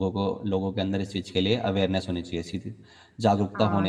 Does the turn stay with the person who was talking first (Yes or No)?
No